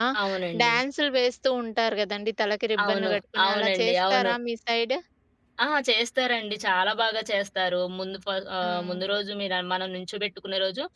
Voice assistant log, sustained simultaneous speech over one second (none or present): present